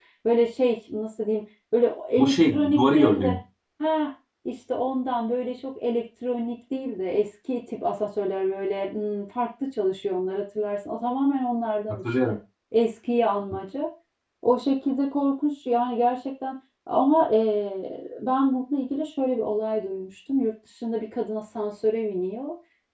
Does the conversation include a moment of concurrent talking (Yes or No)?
Yes